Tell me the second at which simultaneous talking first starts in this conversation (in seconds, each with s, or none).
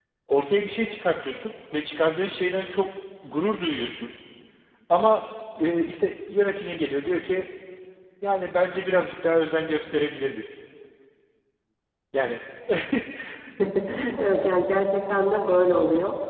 none